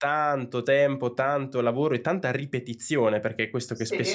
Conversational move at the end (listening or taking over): listening